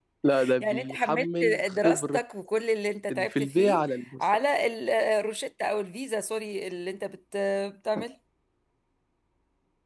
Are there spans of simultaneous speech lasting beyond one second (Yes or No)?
Yes